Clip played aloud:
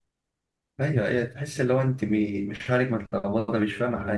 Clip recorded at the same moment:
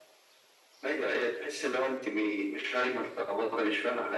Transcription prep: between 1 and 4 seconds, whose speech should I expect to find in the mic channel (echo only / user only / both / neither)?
echo only